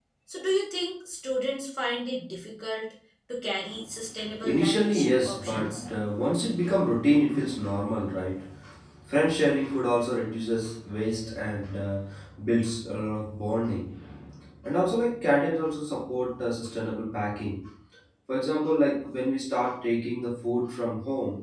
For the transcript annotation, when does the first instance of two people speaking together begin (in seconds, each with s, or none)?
4.4 s